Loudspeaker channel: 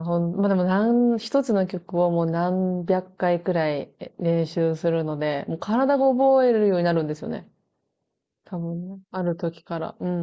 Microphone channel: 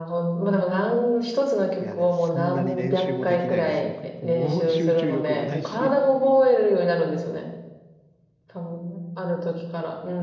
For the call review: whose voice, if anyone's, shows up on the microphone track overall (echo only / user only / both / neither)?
both